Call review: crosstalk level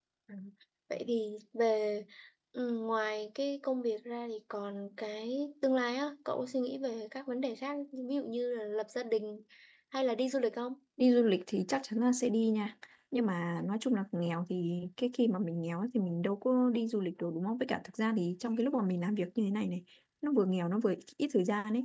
none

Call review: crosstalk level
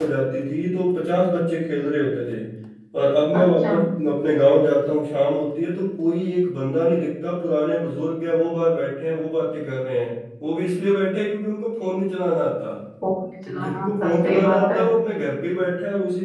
present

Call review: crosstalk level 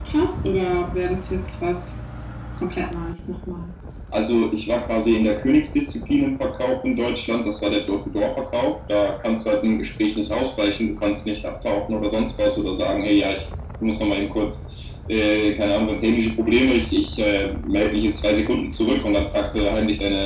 none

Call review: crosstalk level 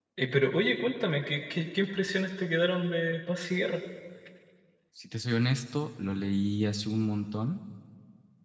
none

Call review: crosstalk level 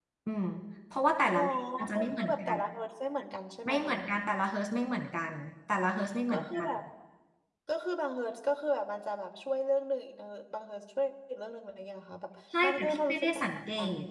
present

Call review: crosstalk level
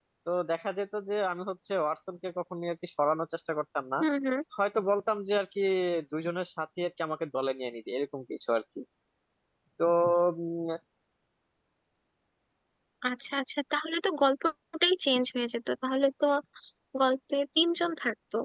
none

